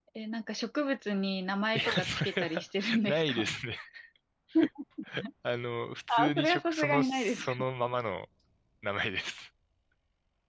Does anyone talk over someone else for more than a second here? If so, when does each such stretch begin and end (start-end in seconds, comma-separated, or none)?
1.7-3.5, 6.1-7.5